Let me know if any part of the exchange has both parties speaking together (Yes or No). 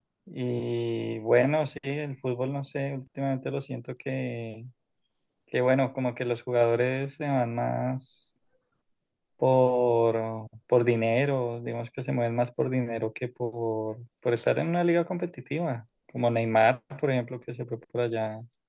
No